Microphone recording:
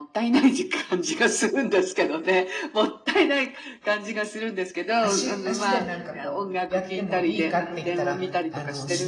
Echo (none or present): present